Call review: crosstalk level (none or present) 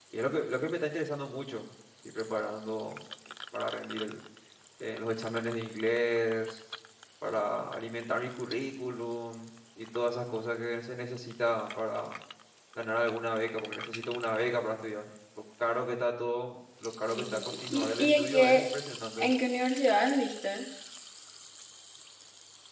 present